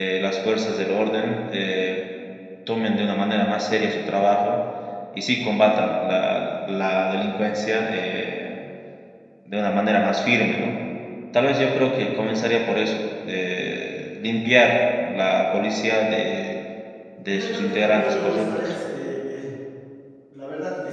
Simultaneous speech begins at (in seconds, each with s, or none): 17.3 s